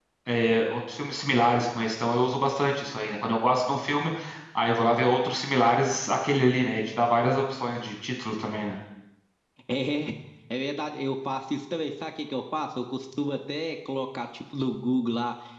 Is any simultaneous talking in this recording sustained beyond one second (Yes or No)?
No